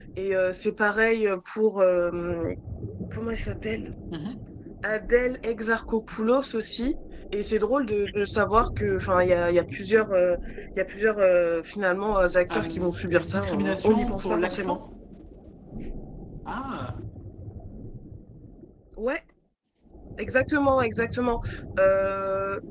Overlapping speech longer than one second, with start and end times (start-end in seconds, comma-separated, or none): 12.5-14.8